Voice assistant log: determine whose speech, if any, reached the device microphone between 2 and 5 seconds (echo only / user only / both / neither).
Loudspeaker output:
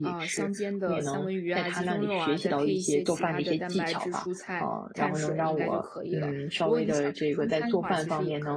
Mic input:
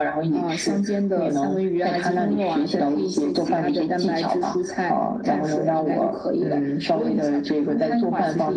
echo only